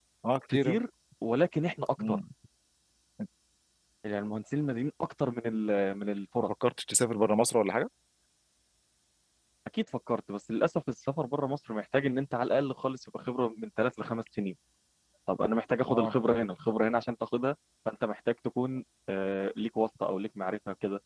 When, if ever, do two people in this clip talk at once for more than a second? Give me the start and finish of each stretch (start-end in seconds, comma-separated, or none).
none